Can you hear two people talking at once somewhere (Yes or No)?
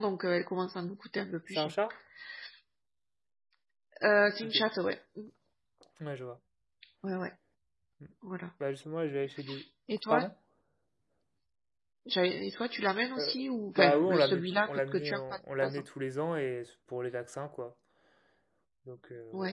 Yes